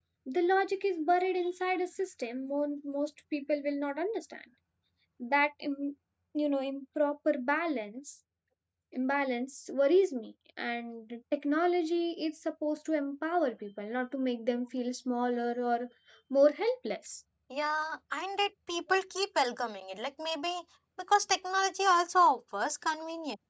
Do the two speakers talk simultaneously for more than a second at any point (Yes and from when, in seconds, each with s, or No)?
No